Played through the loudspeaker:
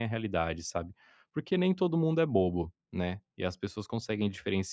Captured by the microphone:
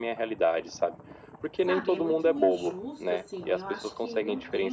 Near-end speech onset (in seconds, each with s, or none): 1.6 s